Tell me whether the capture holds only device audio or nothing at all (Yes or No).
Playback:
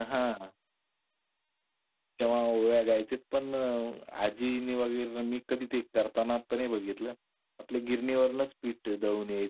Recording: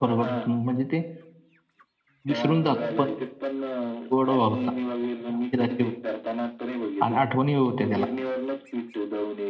No